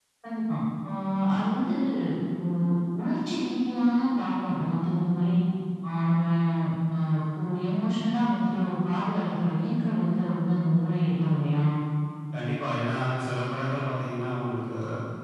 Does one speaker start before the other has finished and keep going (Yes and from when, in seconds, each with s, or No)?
No